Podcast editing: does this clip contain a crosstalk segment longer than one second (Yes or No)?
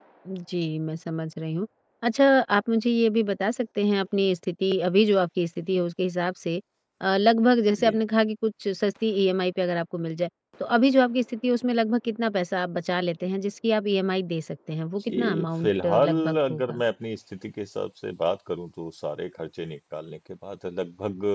Yes